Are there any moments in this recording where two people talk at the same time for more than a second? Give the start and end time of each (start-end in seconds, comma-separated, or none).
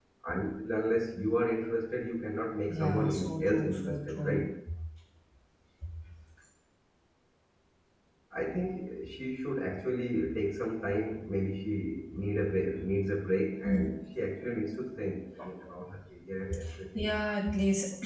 2.8-4.4